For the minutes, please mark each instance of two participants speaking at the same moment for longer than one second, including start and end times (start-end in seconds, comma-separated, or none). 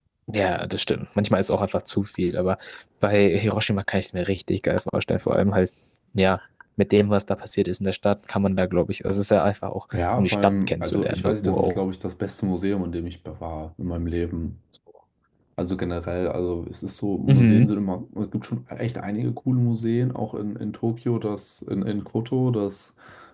10.2-11.8